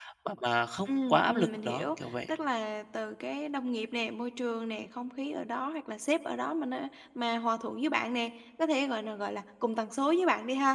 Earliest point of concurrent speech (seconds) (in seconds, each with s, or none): 0.9 s